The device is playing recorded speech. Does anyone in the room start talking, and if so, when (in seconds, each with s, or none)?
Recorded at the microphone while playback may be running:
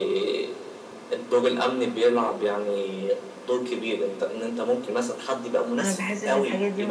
5.8 s